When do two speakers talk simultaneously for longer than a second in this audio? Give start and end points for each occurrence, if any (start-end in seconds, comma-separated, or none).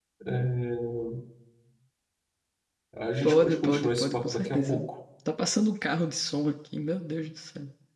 3.2-4.8